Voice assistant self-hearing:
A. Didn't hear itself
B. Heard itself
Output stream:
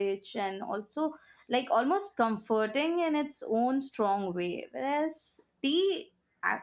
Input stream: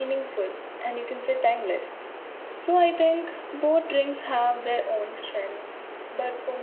A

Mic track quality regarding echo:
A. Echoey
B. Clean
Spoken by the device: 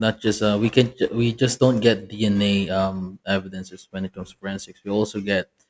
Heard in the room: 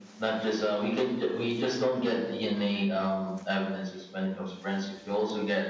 A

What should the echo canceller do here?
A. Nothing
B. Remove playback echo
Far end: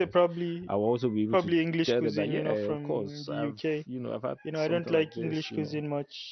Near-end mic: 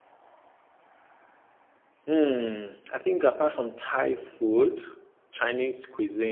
A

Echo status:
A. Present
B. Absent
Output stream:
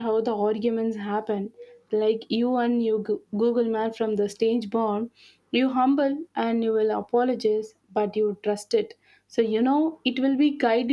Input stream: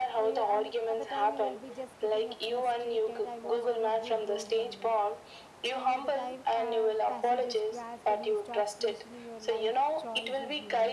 A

